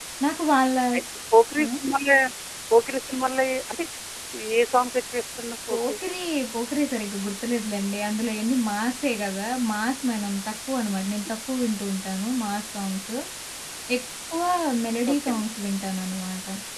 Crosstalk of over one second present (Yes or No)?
No